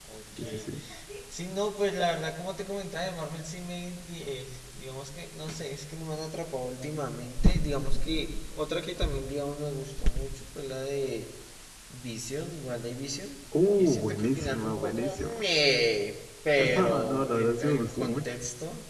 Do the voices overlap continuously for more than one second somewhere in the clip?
Yes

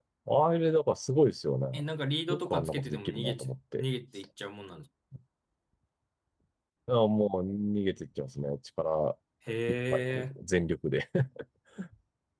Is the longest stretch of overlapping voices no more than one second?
No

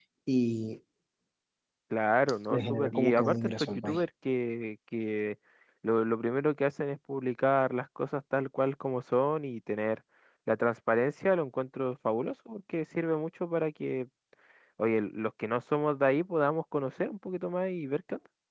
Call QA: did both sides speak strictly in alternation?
No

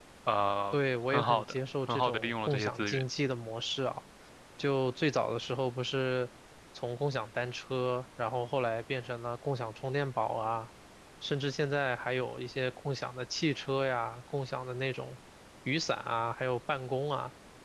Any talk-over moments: Yes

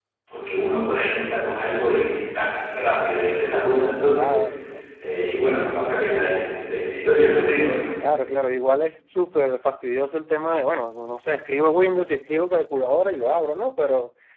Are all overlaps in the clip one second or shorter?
Yes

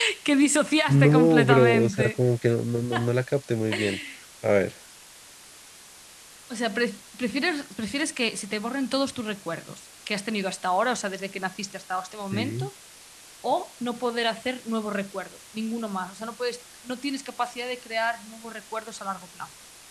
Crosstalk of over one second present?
Yes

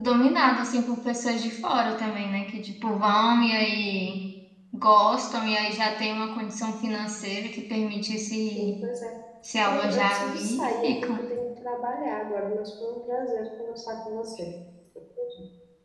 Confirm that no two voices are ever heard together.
No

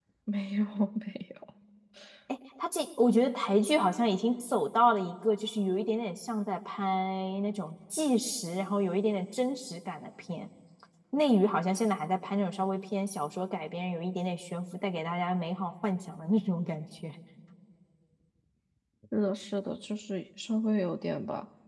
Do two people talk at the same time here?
No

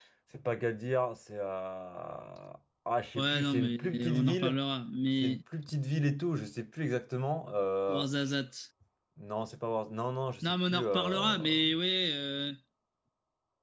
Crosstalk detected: Yes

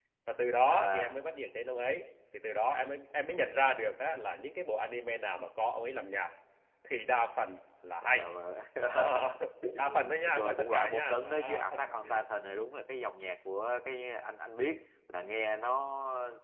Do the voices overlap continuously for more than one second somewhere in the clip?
Yes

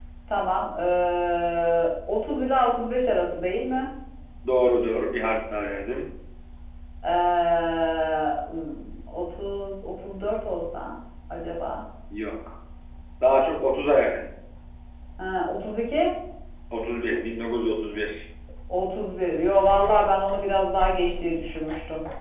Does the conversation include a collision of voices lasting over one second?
No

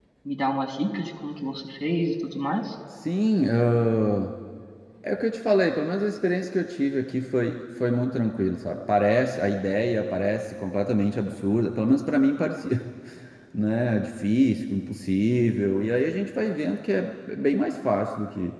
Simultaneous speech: No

